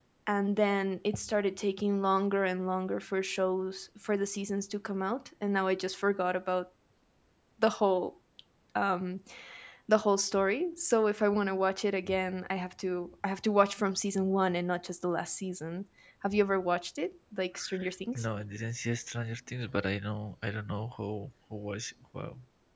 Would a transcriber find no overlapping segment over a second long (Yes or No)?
Yes